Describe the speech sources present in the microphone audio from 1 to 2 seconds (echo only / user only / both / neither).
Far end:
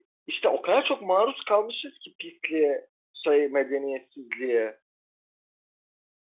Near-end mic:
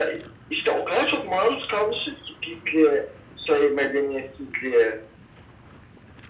echo only